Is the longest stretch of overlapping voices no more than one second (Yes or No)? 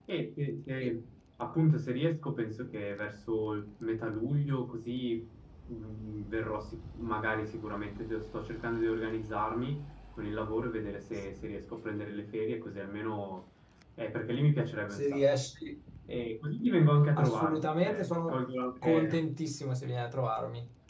No